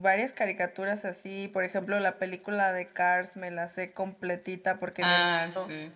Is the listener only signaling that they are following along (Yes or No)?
Yes